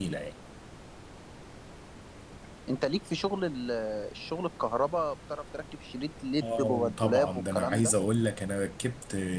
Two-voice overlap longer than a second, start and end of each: 6.4-7.9

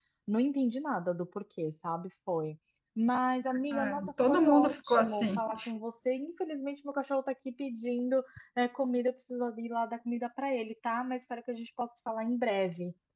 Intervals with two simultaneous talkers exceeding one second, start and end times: 3.7-5.4

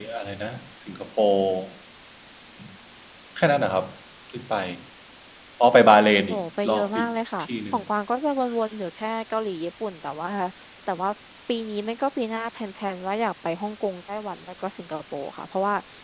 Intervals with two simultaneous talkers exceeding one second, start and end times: 6.3-7.8

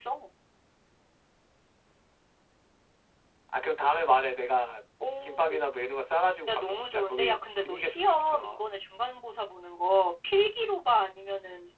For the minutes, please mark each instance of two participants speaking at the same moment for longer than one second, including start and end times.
6.5-8.6

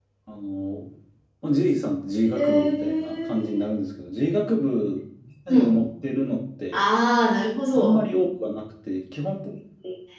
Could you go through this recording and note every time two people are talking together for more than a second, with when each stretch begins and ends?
2.3-3.7

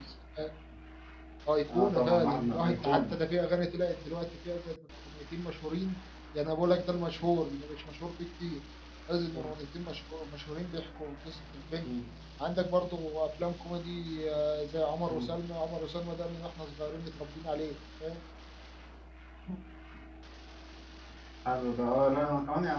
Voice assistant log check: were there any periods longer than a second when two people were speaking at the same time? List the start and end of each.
1.7-3.1

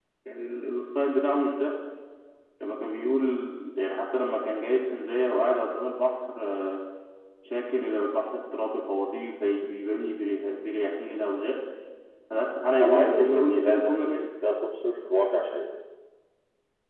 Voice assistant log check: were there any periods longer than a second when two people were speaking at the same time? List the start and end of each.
12.8-14.2

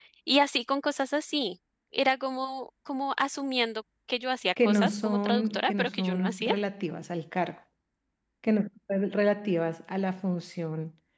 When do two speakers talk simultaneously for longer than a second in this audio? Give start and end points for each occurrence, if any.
4.6-6.5

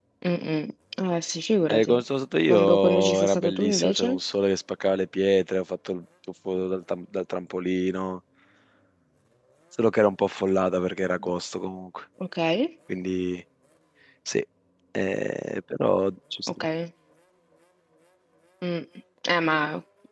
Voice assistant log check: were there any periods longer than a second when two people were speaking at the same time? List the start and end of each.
2.5-4.2

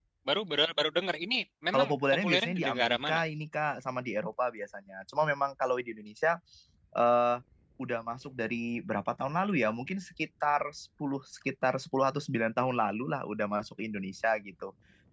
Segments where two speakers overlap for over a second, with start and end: 1.7-3.2

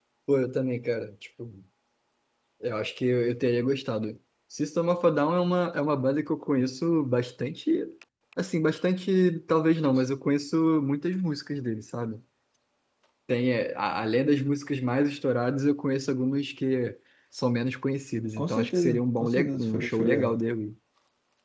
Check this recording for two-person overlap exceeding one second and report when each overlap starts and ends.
18.4-20.4

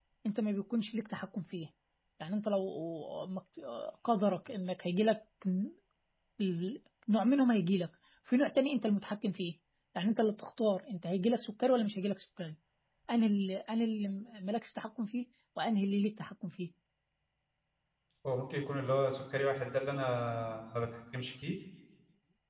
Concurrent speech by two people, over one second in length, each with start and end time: none

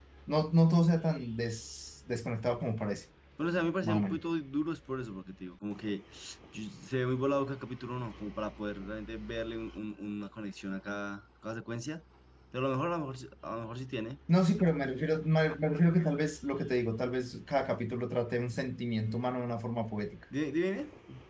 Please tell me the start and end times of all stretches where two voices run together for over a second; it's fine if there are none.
none

